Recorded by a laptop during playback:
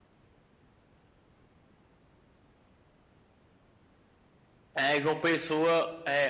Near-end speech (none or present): present